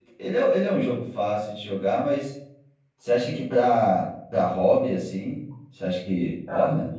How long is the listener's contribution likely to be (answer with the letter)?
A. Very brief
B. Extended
B